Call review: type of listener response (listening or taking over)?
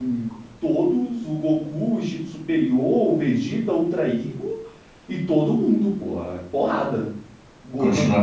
taking over